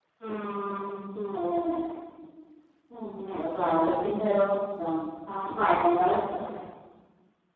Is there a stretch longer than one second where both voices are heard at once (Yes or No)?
No